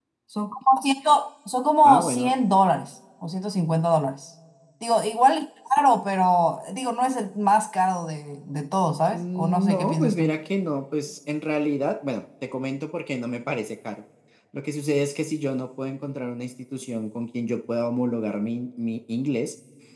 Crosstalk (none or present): present